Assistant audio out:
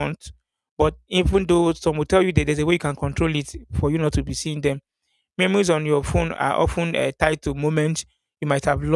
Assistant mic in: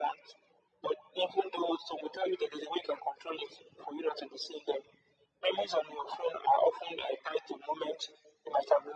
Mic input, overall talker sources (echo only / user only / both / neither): echo only